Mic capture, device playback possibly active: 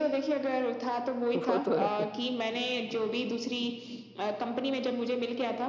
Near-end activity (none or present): present